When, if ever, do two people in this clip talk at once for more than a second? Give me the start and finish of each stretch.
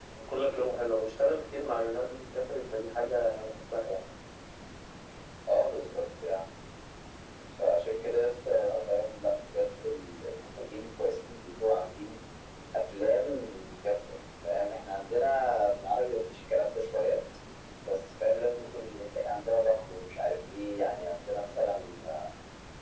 none

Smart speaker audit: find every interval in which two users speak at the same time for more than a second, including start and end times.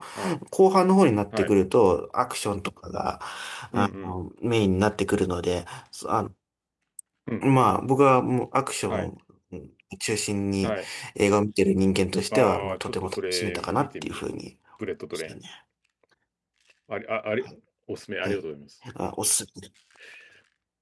12.3-14.2

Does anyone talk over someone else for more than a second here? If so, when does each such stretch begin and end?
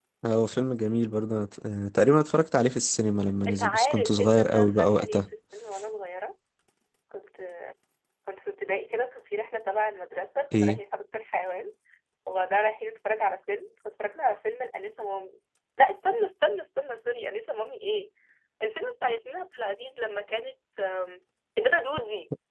3.5-5.2

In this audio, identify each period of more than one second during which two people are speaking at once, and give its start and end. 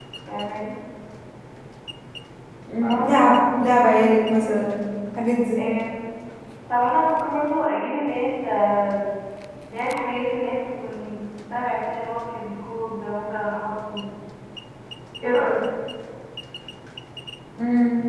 2.8-4.6

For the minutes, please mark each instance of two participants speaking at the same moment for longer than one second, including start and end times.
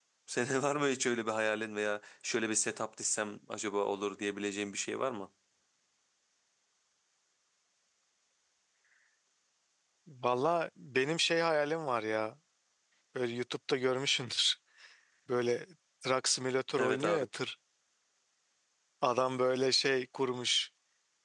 none

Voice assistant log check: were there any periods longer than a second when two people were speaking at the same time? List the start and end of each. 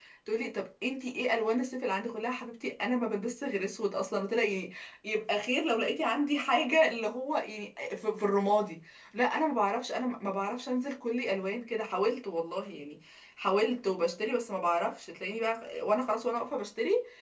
none

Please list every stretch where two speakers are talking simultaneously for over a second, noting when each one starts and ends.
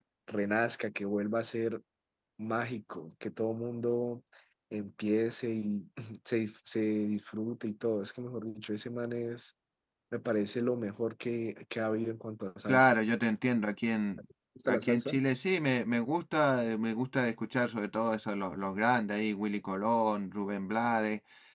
none

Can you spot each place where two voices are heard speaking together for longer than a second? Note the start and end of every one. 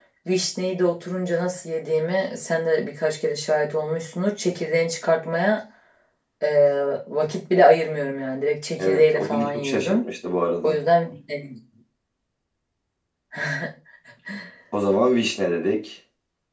8.8-10.0

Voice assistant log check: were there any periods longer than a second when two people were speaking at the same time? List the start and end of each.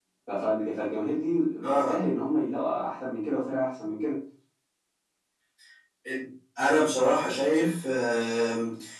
none

